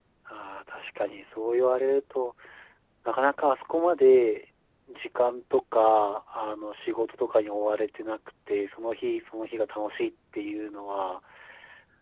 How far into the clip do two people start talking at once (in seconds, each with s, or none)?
none